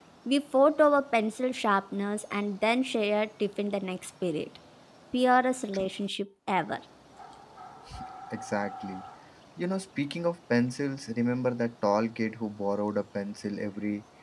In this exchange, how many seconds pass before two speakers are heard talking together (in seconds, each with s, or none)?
none